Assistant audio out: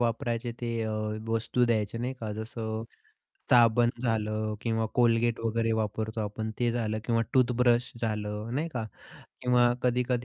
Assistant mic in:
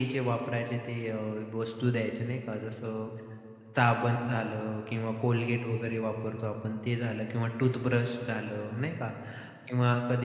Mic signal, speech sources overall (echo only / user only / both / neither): echo only